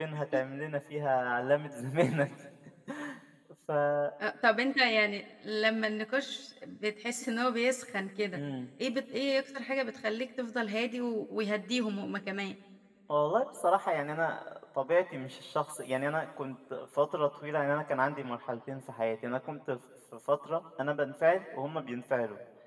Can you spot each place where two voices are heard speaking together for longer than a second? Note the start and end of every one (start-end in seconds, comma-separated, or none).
none